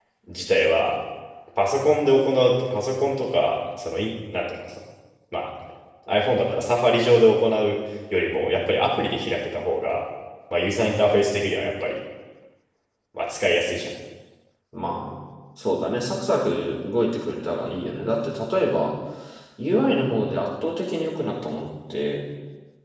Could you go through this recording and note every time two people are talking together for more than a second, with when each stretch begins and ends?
none

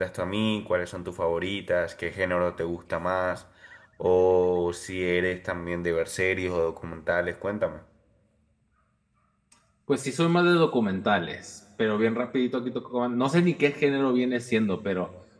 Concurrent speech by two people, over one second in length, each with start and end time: none

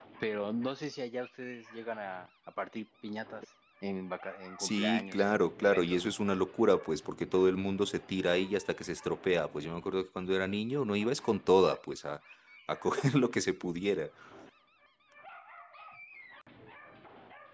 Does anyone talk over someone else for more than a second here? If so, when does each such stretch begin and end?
4.6-6.0

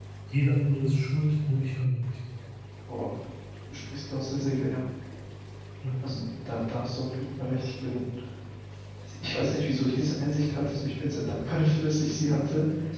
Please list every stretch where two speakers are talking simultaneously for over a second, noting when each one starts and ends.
none

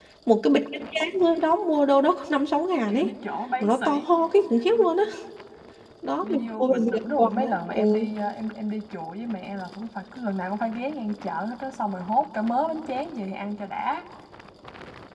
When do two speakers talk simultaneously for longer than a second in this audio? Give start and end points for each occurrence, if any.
6.2-8.1

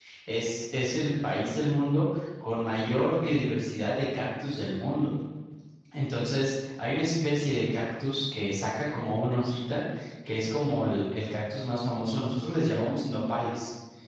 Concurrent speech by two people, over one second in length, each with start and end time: none

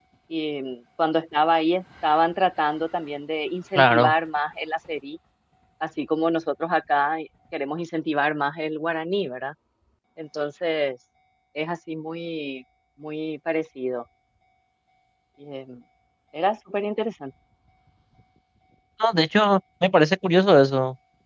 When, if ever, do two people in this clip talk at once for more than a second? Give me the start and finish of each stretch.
none

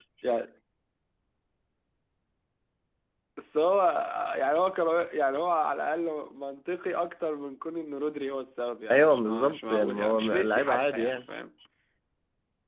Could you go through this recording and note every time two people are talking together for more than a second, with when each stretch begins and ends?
8.9-11.2

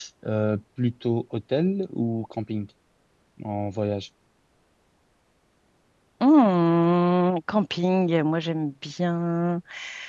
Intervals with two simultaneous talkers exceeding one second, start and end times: none

